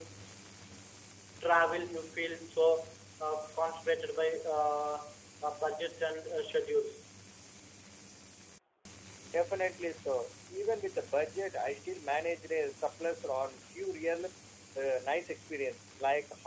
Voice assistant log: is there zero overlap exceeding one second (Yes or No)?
Yes